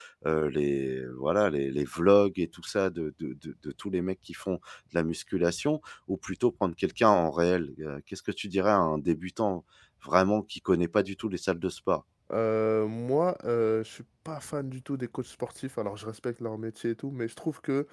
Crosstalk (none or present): none